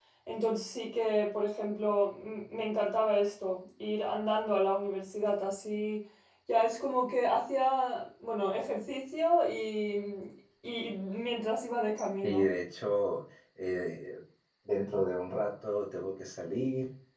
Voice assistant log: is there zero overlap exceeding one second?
Yes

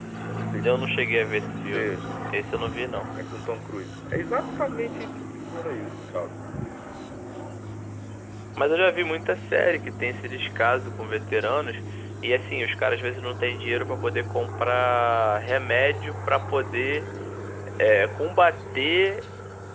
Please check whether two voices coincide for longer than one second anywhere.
No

